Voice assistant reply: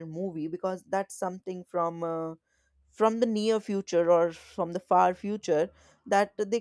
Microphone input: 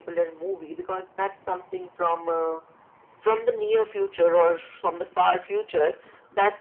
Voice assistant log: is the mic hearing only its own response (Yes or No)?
Yes